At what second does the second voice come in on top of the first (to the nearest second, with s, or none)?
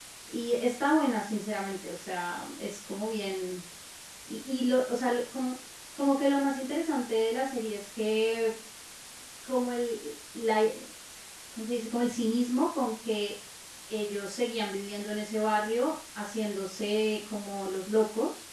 none